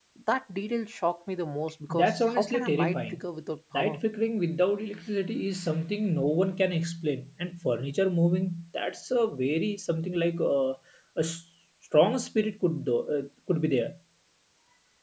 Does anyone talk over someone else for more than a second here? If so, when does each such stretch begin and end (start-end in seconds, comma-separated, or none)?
1.9-3.2